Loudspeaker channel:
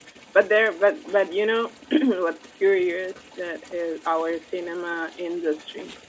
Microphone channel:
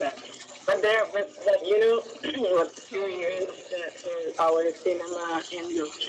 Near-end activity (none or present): present